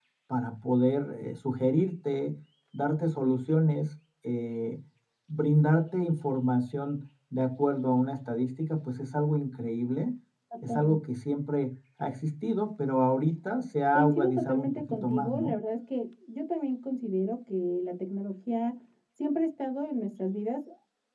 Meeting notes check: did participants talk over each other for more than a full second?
Yes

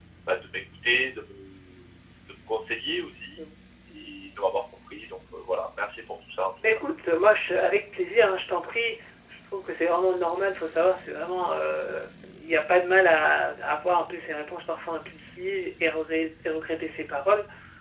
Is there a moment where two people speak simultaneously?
No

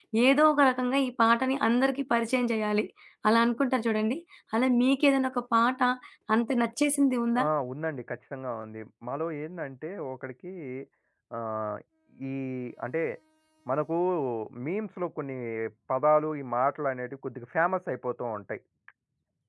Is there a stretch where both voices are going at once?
No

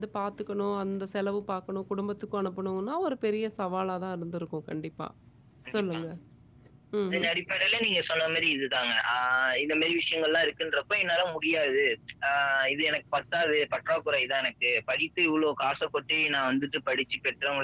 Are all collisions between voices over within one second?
Yes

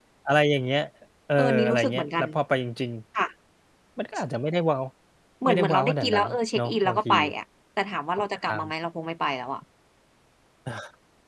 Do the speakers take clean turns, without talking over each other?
No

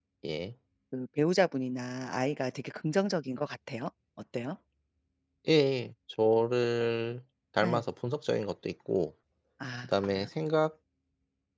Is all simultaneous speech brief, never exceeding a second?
Yes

